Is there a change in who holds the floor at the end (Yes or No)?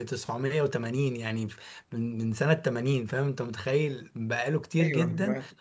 No